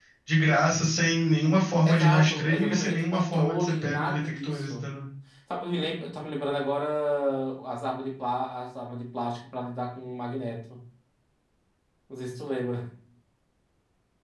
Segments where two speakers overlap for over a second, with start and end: 1.9-4.9

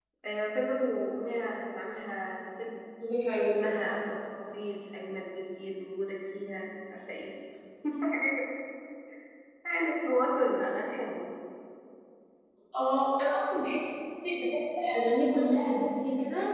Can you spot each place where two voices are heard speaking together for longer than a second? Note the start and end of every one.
none

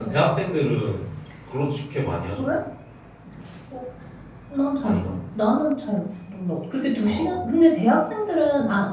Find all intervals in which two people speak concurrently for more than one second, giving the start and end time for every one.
none

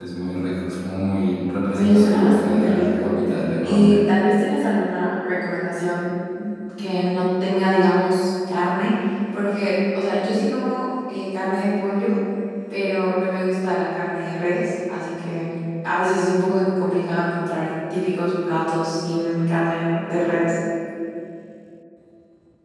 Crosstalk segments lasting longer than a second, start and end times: 1.7-3.1

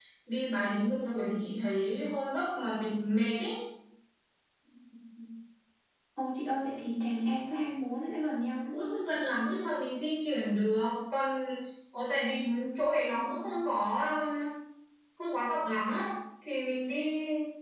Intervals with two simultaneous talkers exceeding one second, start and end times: none

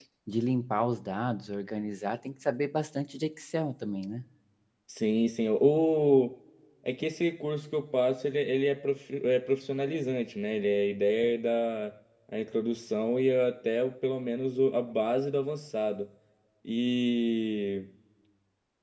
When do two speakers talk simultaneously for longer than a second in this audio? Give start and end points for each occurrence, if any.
none

